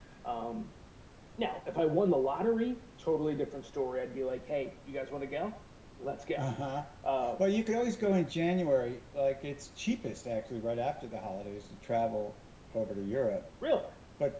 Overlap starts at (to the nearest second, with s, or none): none